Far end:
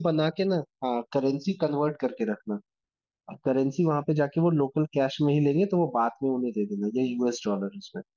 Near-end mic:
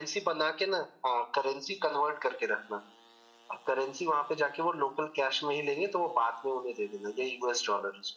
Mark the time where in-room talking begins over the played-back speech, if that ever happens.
none

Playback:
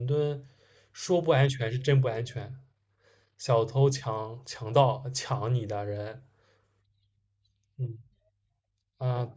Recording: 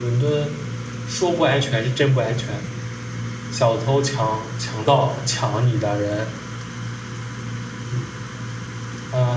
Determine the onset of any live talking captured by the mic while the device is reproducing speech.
none

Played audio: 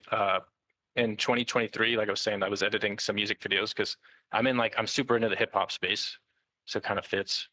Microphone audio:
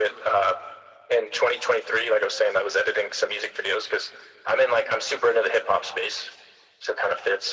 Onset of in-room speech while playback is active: none

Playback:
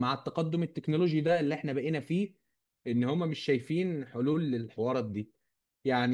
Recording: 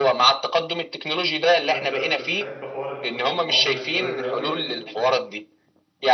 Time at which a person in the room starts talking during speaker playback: 1.6 s

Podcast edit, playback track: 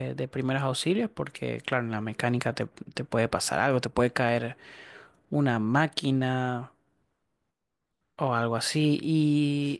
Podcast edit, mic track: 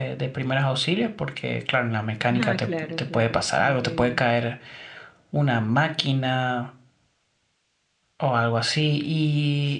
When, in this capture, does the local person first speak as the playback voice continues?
2.4 s

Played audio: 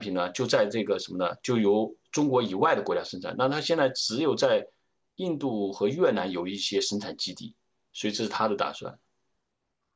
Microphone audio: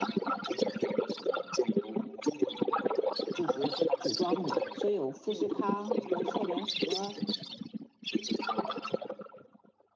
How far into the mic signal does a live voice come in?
3.3 s

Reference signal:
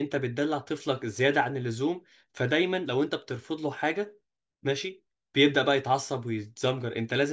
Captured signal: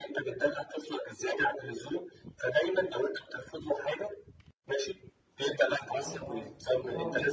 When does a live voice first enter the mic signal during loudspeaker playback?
5.8 s

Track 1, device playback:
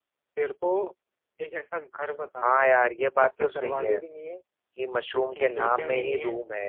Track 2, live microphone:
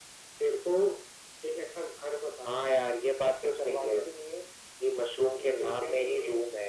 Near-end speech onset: none

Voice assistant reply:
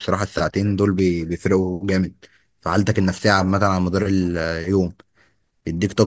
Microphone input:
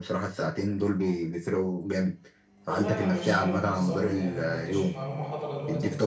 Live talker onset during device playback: 2.6 s

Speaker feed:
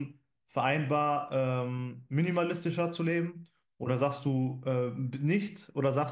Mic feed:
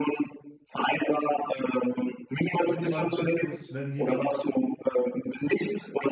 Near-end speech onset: 2.6 s

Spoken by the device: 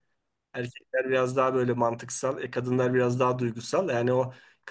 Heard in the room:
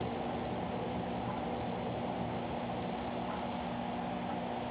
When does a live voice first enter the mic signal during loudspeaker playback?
none

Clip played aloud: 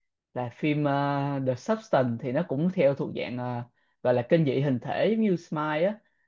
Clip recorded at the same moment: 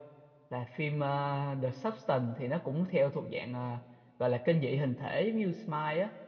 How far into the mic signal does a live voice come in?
none

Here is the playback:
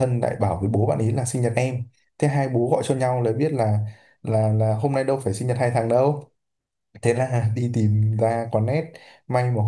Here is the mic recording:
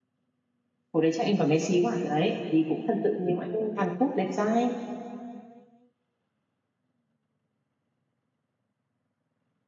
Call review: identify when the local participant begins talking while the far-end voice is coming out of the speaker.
0.9 s

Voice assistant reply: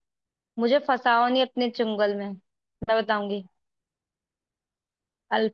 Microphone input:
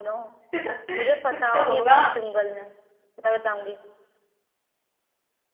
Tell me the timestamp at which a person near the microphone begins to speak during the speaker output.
0.6 s

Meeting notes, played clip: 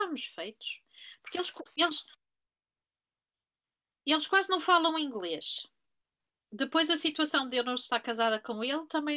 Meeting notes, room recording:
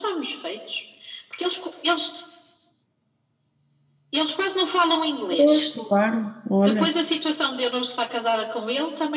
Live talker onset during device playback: 5.3 s

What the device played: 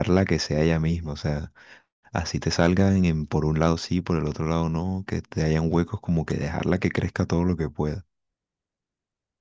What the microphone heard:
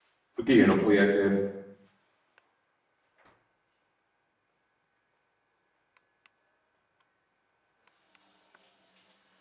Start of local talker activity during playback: 0.3 s

